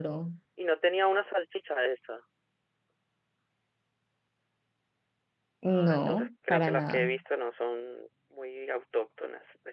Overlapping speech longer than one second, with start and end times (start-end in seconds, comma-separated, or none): 5.7-7.2